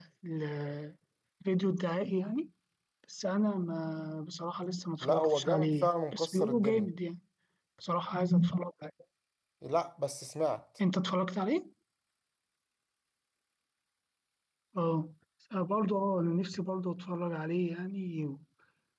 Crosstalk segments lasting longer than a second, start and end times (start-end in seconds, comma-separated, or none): 5.0-6.9